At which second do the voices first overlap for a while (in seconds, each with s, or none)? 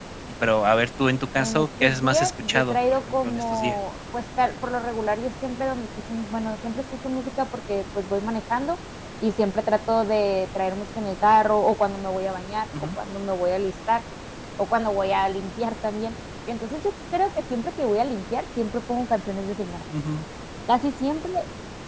1.4 s